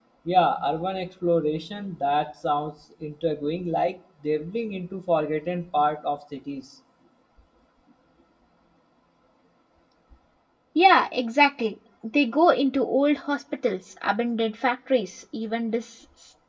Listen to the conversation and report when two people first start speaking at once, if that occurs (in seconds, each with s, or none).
none